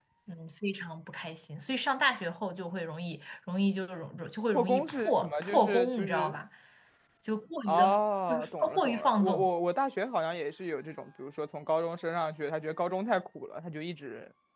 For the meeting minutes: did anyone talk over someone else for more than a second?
Yes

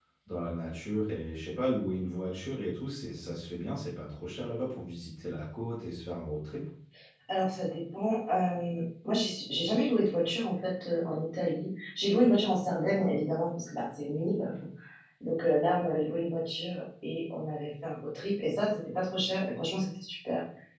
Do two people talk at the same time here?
No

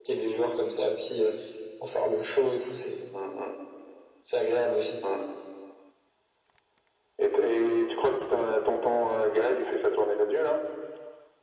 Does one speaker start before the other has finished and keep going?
No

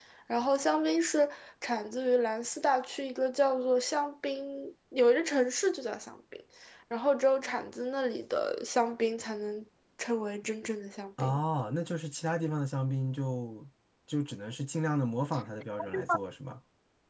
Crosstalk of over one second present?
No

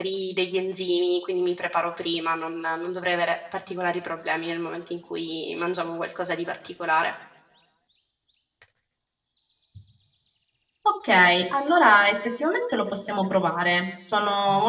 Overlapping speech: No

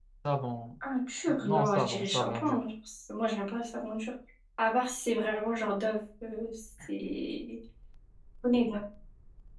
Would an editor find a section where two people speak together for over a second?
Yes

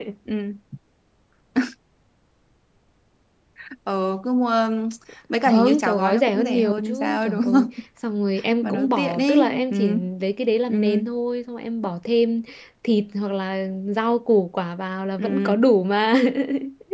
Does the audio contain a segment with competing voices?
Yes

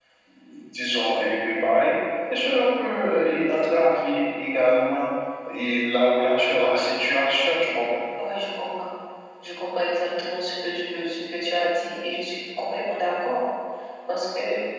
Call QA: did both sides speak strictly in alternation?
Yes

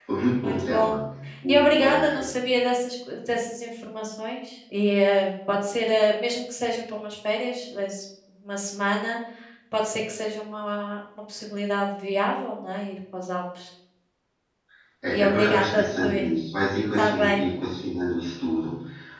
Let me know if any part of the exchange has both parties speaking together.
Yes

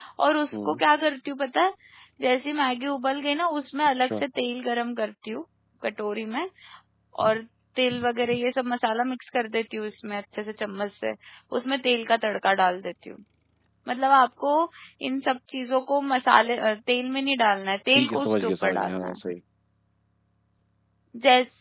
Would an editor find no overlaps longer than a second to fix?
No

